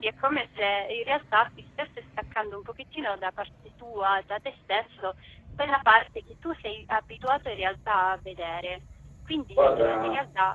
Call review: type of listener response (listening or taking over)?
listening